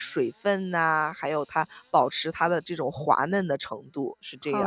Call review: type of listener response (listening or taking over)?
taking over